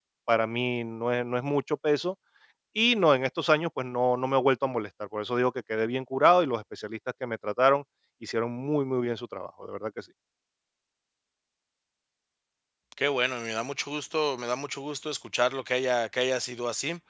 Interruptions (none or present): none